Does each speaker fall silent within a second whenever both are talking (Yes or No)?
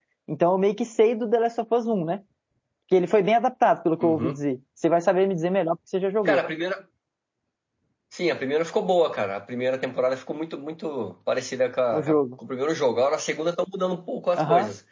Yes